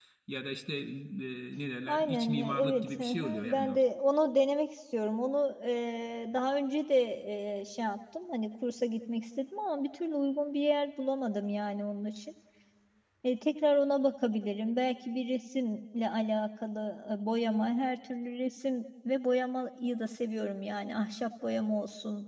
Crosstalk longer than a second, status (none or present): present